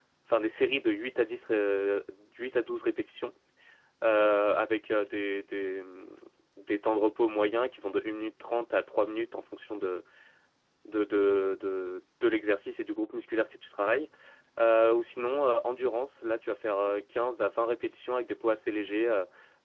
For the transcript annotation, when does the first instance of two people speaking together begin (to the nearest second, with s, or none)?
none